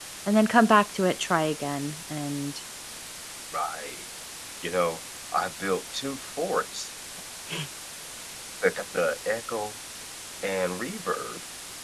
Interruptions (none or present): none